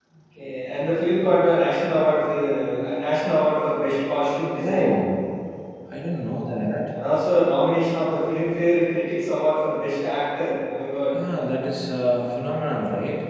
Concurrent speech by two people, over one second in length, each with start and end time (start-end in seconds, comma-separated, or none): none